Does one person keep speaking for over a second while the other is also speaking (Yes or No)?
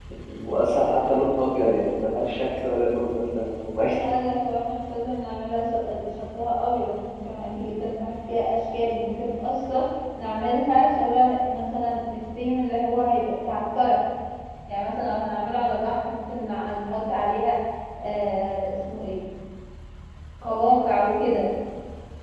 No